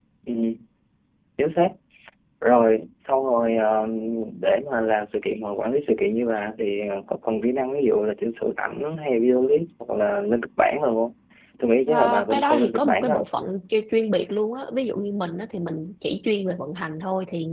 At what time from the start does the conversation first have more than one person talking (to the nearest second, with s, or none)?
12 s